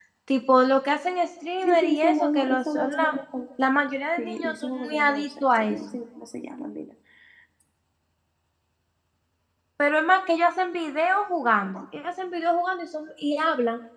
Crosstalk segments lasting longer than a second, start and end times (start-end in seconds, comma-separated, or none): 1.6-3.1, 4.2-5.8